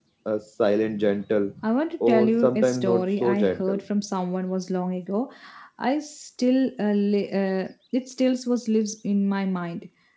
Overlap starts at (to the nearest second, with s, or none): 2 s